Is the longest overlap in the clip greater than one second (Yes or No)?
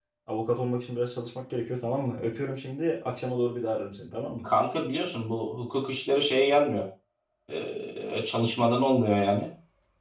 No